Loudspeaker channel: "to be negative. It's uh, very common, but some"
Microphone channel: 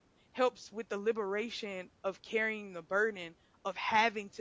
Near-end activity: present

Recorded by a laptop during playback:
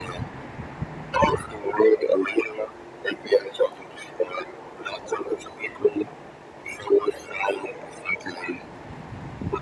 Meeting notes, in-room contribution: none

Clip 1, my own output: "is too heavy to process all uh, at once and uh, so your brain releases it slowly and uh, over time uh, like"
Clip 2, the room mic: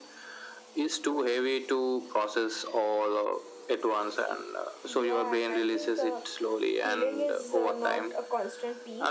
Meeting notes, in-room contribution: present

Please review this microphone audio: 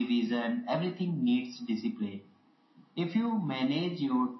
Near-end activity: none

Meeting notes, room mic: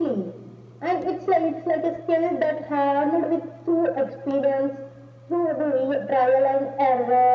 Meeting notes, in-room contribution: none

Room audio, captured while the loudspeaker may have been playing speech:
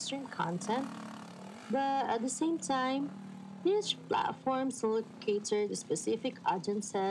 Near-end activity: none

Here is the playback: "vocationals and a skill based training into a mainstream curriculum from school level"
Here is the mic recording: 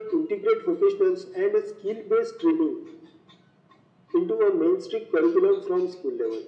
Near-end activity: none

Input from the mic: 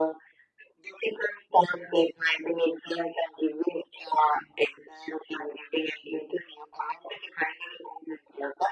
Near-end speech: none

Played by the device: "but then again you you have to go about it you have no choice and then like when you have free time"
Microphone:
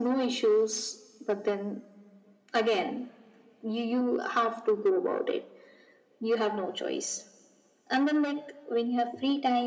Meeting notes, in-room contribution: none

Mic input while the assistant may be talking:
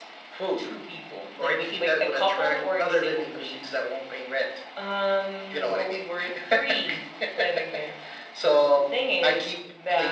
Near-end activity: none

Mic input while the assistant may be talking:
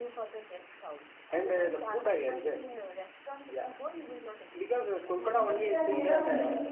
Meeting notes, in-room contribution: present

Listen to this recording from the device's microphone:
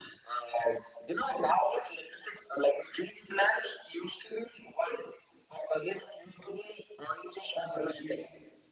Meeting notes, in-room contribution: none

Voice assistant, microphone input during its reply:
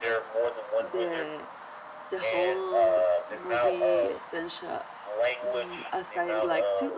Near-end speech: present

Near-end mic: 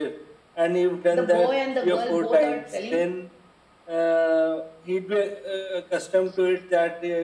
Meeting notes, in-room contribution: present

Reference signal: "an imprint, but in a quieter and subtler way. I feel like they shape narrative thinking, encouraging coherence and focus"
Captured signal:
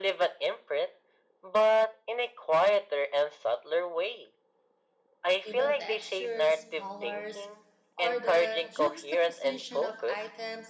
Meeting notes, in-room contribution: present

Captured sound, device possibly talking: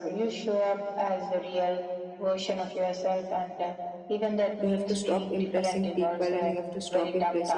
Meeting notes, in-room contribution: present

